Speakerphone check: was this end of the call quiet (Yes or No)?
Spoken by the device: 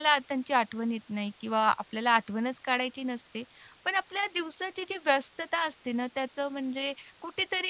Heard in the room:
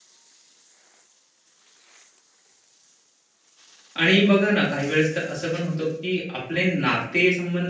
No